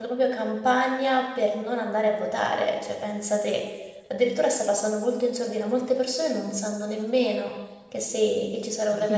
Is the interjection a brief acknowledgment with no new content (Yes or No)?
No